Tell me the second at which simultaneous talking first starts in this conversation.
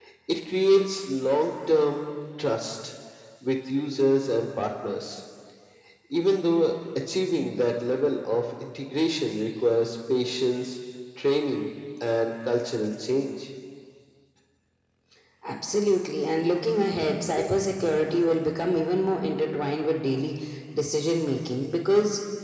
none

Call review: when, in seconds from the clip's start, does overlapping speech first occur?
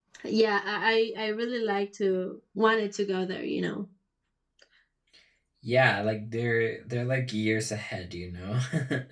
none

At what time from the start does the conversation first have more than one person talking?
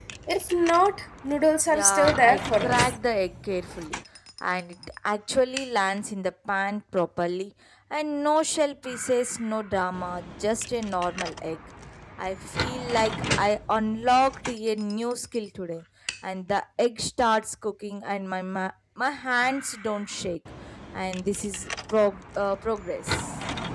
1.7 s

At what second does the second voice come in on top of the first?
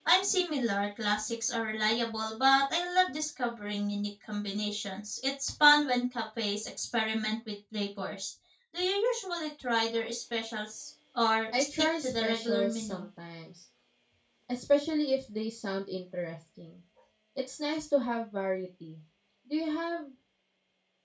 11.5 s

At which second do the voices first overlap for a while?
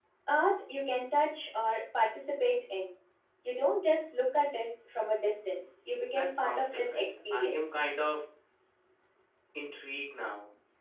6.2 s

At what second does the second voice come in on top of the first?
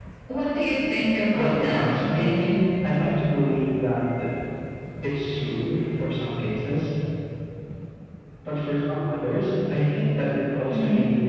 1.3 s

